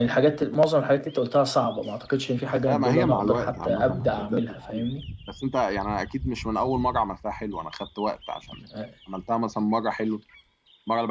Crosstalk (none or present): present